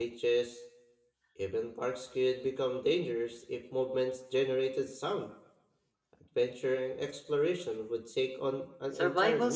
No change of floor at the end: No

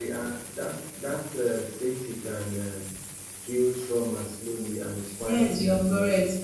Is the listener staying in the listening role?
No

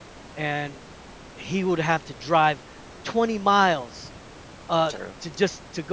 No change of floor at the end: Yes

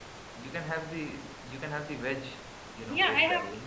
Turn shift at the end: Yes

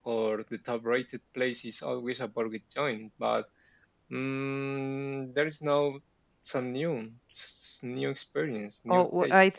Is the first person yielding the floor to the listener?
Yes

